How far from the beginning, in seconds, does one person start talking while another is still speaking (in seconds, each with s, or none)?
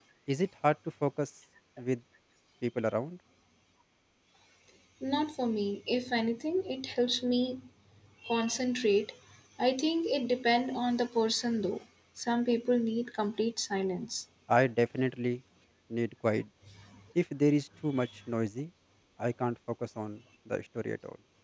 none